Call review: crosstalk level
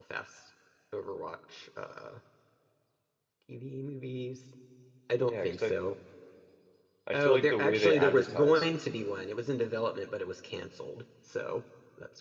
present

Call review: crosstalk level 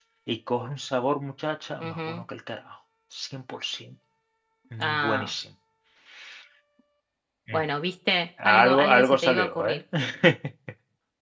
present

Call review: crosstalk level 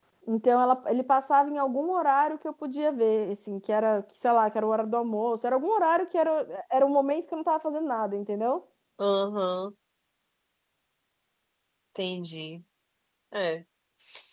none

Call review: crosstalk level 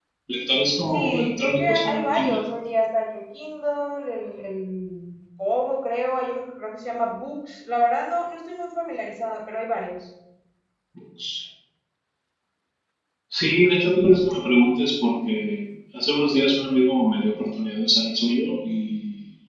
present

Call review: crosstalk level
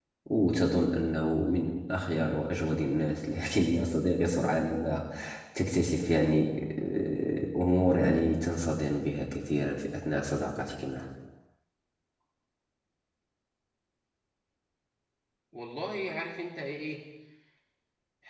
none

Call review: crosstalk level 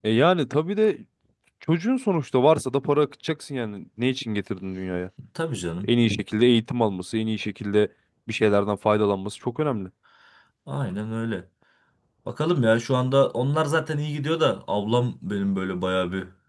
none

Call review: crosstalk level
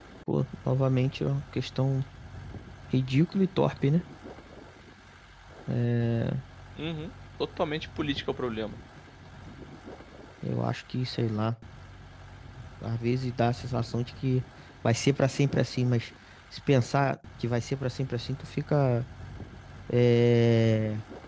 none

